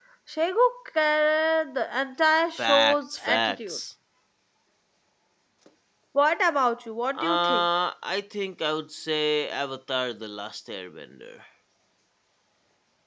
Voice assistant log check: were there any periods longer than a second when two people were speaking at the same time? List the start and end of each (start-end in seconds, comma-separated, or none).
2.6-3.8